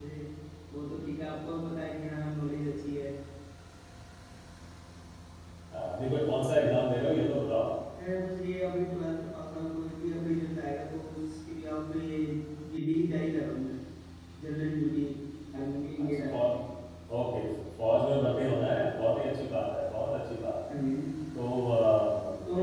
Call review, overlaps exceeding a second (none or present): none